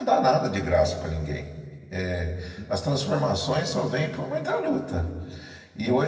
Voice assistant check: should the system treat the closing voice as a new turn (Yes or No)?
No